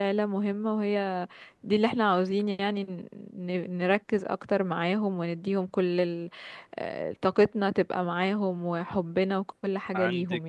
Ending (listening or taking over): taking over